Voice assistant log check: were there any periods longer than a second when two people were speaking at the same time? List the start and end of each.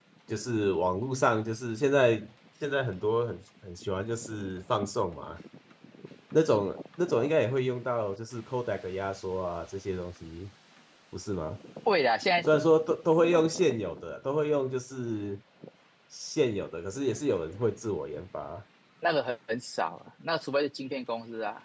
none

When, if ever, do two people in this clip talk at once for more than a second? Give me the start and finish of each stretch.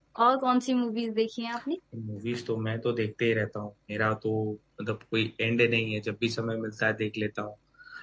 none

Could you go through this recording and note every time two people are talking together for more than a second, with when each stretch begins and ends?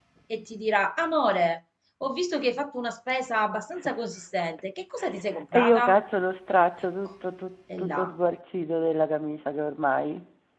none

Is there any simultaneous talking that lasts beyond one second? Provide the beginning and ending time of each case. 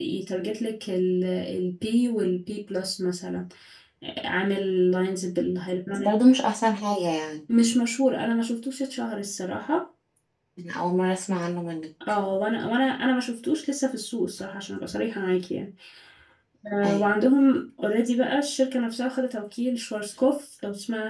none

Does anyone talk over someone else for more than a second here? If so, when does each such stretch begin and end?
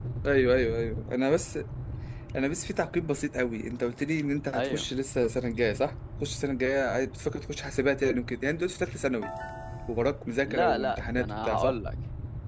10.5-11.8

